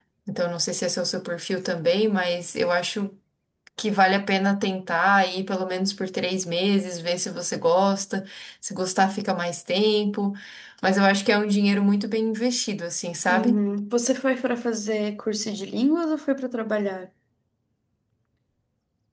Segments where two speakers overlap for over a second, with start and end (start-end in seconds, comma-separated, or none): none